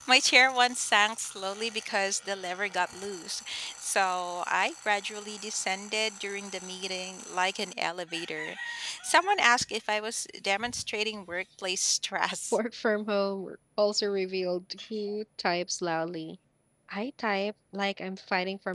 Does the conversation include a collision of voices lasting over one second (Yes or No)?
No